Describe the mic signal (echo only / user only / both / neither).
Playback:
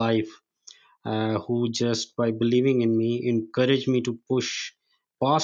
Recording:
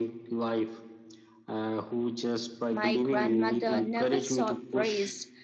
both